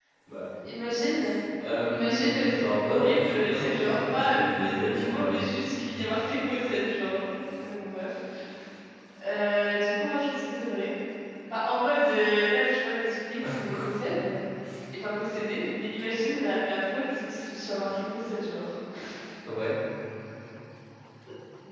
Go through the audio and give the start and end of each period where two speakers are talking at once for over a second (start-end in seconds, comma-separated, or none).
1.9-5.4